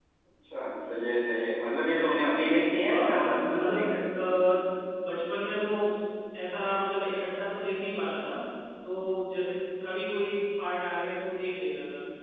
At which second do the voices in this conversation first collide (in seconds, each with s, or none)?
2.9 s